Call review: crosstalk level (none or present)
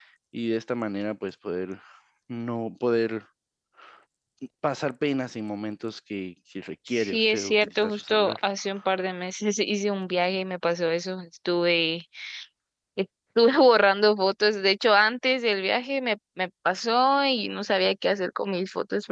present